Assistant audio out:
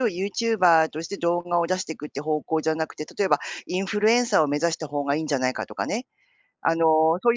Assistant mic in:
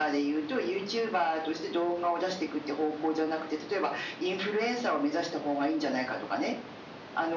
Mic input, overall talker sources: echo only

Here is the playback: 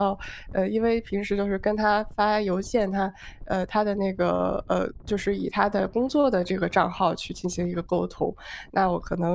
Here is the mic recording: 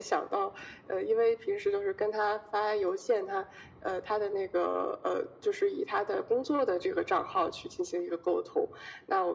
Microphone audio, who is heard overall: echo only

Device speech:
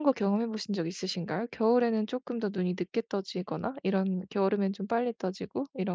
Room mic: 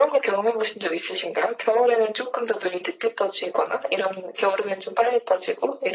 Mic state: echo only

